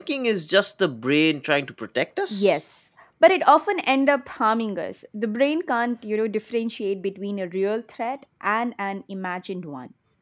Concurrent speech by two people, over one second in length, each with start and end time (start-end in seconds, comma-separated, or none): none